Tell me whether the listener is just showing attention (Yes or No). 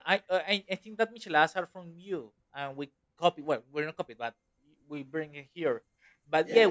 No